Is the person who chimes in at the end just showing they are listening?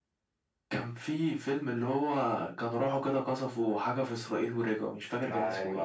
No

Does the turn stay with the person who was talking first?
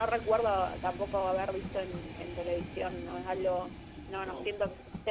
Yes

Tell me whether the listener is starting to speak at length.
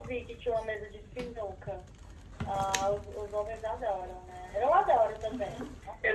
Yes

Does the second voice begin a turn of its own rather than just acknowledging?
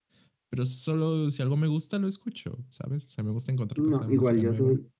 Yes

